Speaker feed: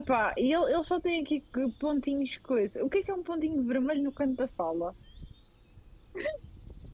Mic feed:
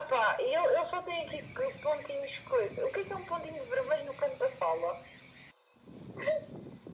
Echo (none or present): present